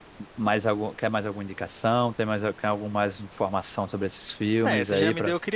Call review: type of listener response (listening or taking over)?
taking over